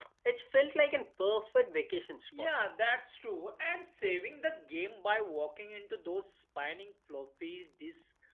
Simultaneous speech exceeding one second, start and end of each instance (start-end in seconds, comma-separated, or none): none